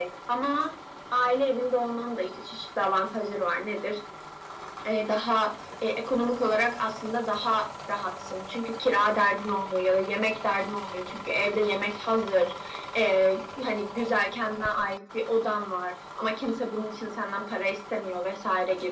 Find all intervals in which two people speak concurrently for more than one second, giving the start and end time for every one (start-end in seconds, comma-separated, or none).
none